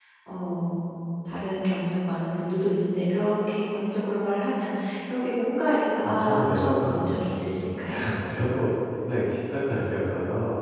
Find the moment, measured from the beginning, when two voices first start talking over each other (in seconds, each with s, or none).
6.0 s